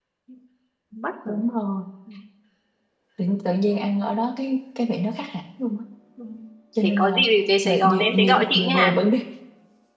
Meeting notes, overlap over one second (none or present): present